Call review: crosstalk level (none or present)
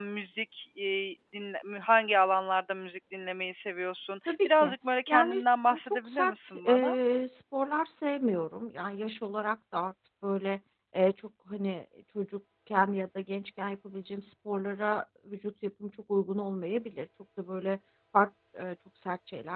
present